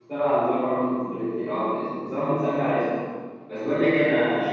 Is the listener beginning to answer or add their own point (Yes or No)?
No